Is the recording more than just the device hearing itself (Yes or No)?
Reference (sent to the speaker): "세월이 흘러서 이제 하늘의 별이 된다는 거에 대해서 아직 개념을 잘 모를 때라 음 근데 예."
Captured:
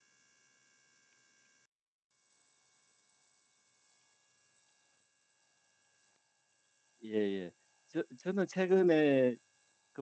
Yes